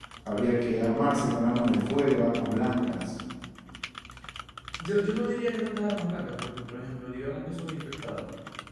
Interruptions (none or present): none